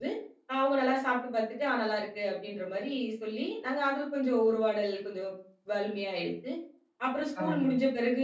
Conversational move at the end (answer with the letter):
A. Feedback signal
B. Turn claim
A